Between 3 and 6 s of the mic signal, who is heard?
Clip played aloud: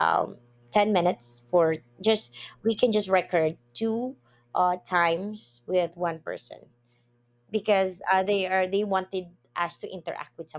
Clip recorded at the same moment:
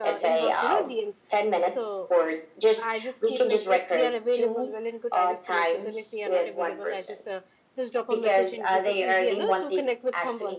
both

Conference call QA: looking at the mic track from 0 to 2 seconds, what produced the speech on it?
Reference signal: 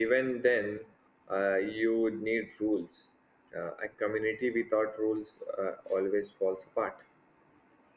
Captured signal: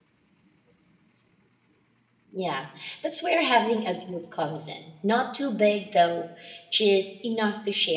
neither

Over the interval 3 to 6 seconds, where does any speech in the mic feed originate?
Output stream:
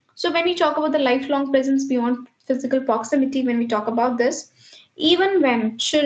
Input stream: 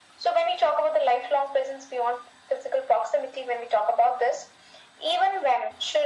echo only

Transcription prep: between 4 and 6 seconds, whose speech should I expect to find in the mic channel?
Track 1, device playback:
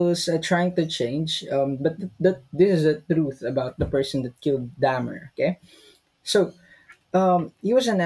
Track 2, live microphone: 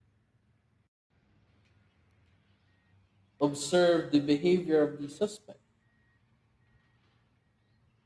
user only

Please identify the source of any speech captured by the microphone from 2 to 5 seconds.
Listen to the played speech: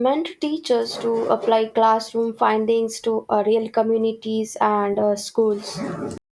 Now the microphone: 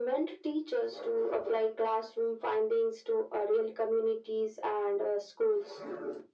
echo only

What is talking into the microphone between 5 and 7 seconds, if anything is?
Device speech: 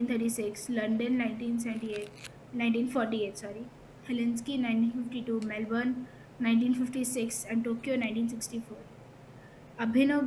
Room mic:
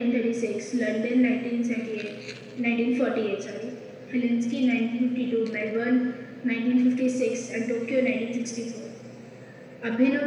echo only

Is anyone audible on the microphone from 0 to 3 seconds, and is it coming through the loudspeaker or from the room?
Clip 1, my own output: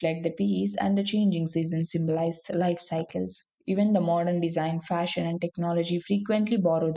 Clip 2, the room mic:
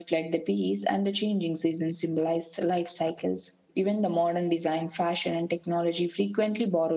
echo only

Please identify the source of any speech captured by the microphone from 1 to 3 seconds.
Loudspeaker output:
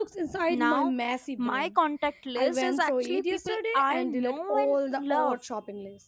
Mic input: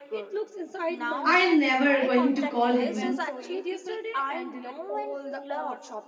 both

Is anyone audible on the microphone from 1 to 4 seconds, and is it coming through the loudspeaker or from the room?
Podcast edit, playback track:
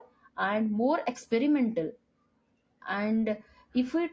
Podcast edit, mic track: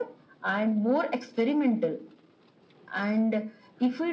echo only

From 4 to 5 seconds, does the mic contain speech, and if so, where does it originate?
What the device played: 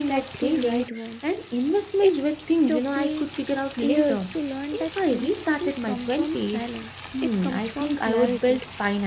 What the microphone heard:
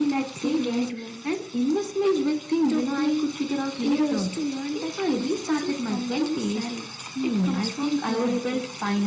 echo only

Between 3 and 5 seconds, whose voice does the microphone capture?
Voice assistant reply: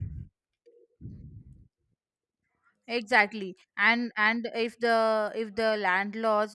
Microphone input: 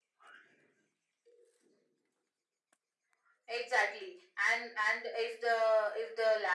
echo only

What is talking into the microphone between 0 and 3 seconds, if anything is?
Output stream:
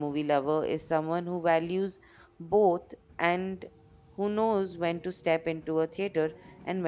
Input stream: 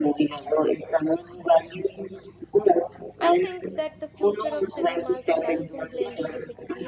echo only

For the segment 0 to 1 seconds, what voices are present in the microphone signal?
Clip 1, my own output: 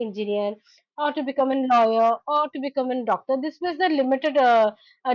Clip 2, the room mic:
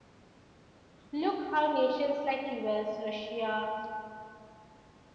neither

